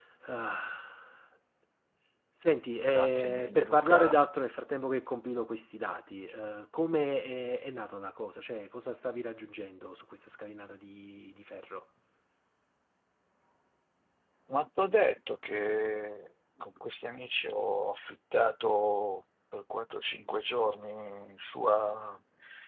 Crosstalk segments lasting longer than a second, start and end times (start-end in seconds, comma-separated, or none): 2.9-4.2